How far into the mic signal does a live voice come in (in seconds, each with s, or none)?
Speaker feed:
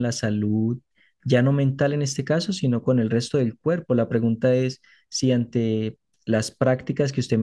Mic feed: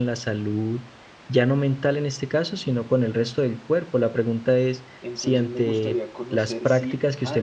5.0 s